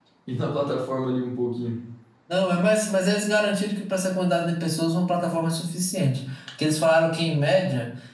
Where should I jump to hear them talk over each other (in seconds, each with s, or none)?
none